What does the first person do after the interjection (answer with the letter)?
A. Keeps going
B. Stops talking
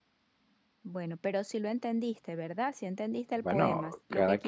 B